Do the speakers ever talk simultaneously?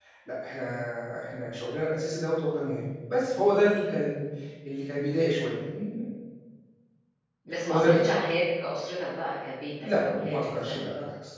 Yes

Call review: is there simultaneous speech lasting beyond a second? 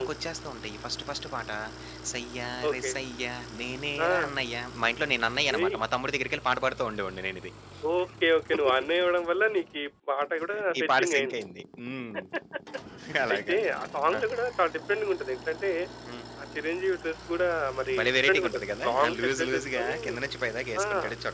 Yes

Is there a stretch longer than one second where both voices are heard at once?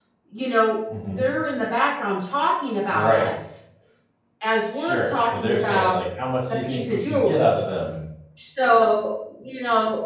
Yes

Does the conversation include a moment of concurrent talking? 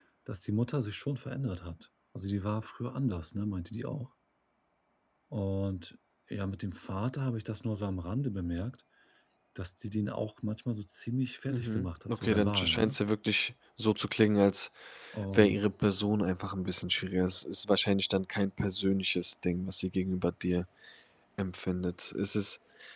Yes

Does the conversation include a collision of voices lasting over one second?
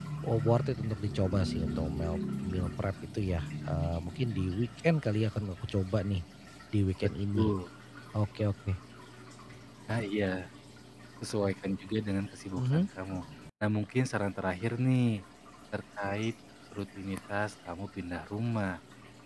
No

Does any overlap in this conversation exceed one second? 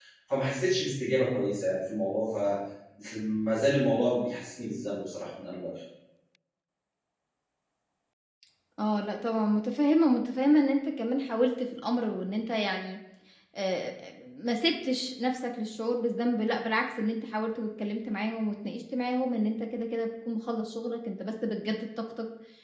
No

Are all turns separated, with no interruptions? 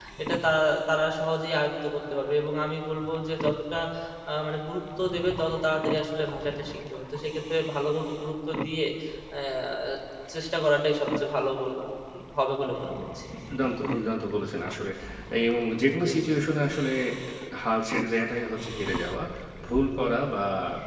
Yes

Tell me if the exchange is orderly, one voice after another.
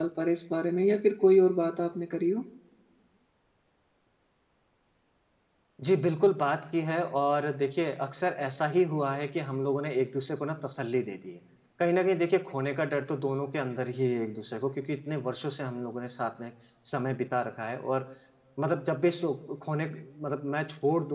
Yes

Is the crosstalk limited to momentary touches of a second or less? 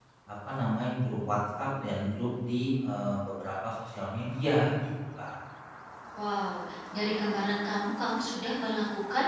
Yes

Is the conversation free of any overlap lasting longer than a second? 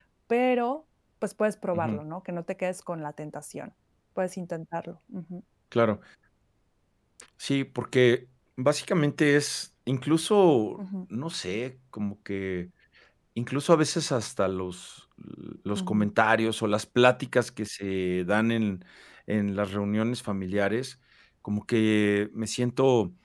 Yes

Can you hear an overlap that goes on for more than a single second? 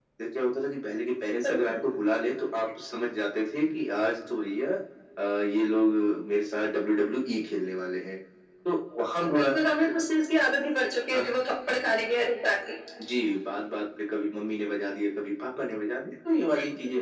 No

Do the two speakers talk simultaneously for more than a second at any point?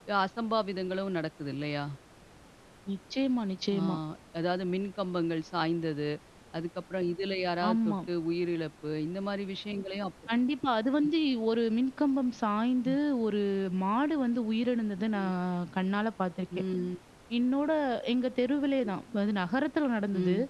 No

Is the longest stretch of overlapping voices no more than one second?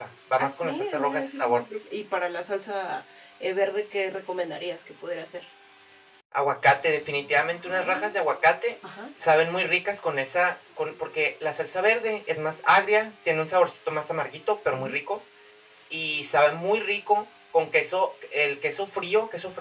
No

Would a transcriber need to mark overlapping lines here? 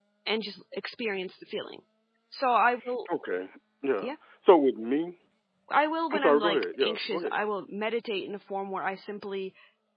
Yes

